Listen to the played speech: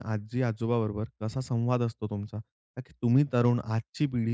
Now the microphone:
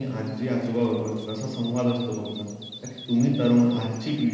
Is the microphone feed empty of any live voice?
Yes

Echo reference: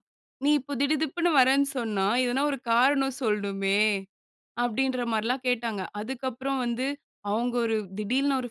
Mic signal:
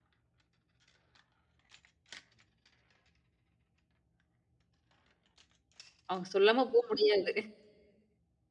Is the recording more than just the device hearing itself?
Yes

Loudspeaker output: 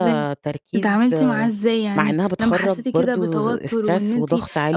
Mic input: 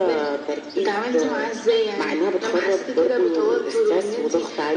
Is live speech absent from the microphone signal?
Yes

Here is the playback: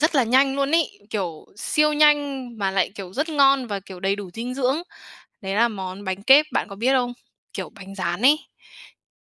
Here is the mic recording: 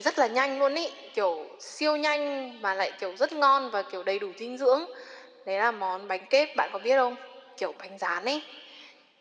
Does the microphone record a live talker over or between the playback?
No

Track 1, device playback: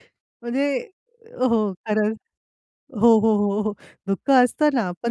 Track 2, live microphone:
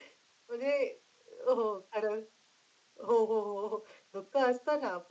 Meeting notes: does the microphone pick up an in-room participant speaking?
No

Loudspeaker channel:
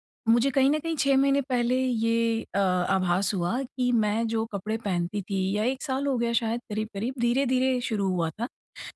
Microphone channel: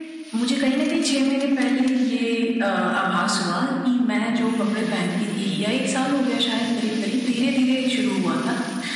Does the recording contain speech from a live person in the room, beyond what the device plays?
Yes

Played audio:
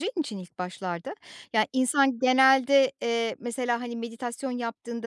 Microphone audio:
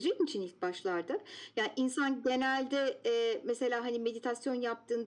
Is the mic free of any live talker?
Yes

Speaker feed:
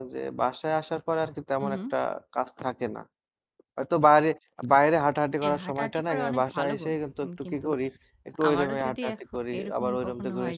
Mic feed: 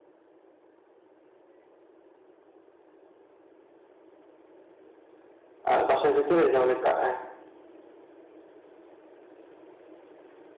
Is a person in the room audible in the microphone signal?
Yes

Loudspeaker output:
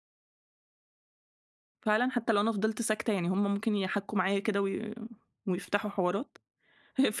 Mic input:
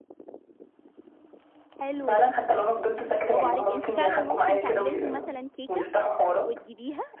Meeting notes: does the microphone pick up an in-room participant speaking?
Yes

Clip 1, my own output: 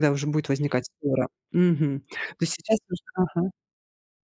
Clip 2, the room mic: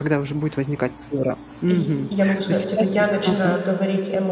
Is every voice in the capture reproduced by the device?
No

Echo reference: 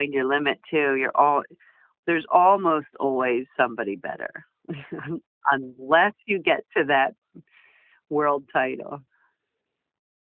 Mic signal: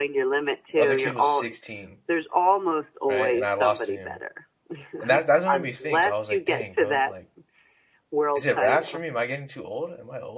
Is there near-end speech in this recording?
Yes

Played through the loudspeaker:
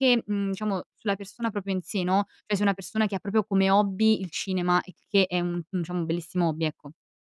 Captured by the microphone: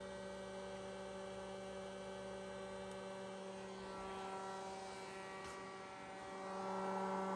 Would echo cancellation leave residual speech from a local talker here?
No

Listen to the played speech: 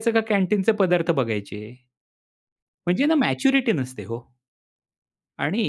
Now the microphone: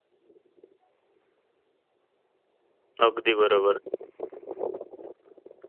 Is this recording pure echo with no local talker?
No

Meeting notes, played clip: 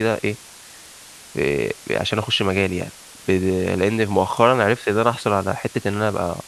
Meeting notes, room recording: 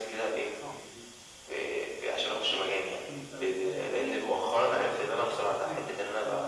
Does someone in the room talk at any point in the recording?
Yes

